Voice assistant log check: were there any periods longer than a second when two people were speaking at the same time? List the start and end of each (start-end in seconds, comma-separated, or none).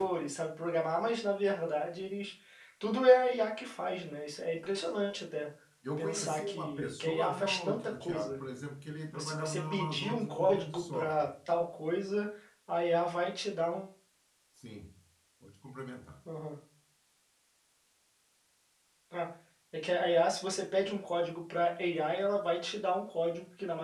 6.0-8.4, 9.2-11.3